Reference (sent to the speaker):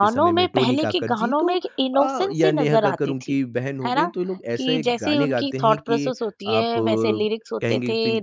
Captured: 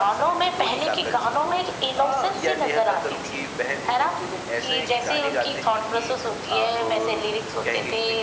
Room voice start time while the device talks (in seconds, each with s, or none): none